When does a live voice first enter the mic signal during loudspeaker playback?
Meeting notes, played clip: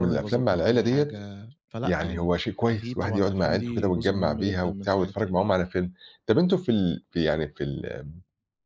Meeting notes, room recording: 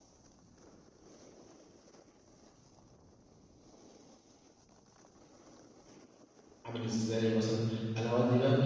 6.6 s

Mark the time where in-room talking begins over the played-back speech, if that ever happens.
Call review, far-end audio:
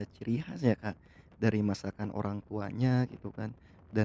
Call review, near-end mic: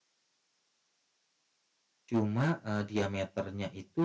2.1 s

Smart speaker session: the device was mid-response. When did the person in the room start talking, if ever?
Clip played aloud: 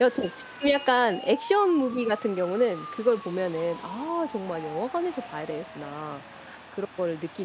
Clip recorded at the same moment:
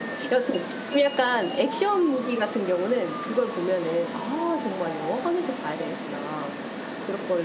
none

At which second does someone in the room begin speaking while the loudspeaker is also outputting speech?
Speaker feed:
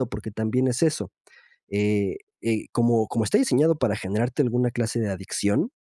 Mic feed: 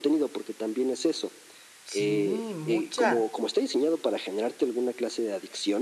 1.8 s

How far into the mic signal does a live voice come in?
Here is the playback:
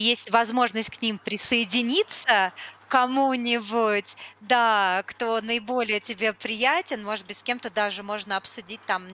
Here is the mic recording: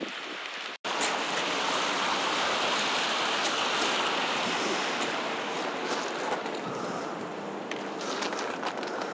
none

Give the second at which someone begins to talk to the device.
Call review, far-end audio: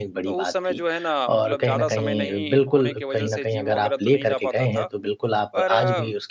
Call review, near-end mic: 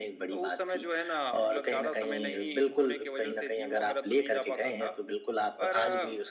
none

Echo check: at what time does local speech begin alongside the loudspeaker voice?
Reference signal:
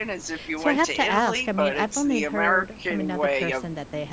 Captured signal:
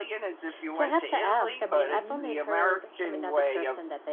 1.4 s

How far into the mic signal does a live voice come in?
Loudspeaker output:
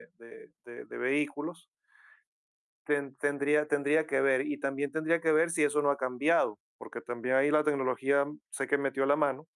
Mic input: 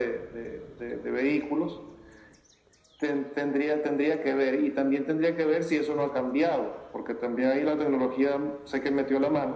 none

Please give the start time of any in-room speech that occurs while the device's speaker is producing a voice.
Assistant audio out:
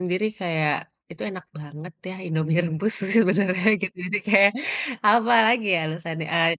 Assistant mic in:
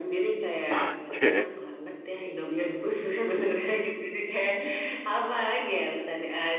0.7 s

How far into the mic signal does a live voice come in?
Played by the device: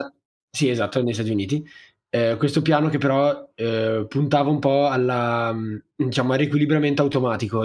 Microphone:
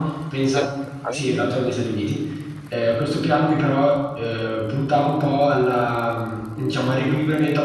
0.5 s

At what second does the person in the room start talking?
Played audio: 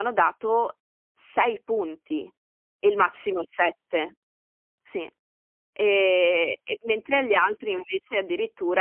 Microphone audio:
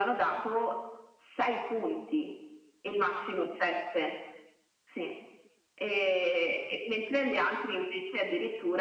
none

